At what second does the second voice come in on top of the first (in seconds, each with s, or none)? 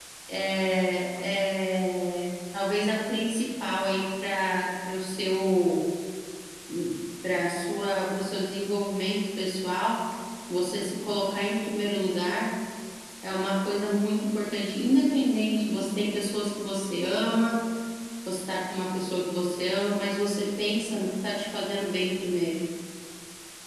none